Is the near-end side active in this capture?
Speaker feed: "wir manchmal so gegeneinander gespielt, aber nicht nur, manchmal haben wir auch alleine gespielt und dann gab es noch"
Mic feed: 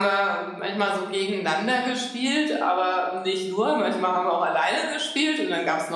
No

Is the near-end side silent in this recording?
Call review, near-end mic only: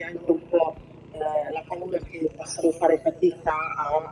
Yes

